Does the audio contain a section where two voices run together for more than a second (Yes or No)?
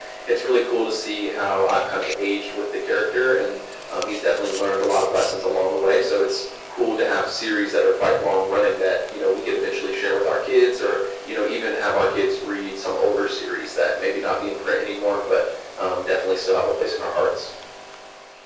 No